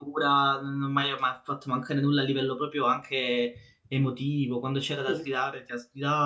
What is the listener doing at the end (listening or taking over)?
listening